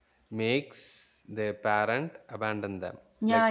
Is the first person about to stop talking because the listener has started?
Yes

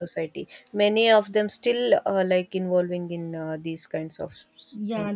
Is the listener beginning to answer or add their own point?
Yes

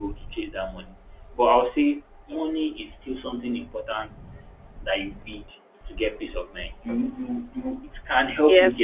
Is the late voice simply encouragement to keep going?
No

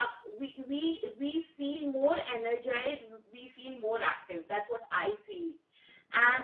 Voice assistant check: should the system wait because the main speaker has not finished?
Yes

